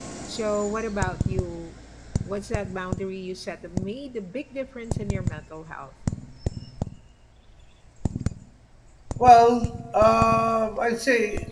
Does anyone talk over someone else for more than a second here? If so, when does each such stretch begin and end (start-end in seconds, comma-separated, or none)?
none